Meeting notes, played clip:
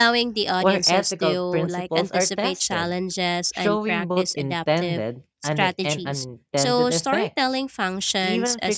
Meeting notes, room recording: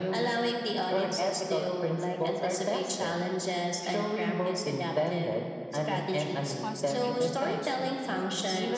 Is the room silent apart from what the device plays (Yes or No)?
No